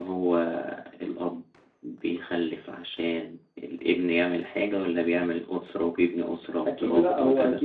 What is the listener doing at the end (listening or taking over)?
taking over